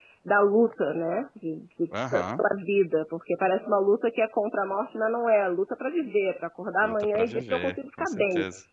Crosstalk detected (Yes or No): Yes